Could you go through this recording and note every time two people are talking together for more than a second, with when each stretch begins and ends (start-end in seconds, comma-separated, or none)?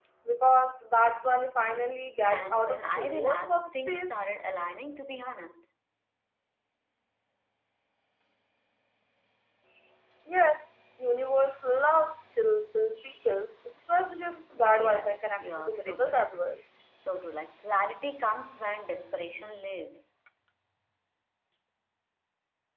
2.2-4.1, 14.5-16.4